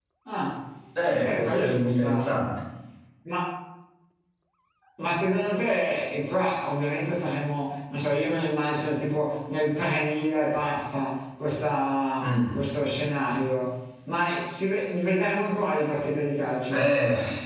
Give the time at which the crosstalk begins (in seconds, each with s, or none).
1.2 s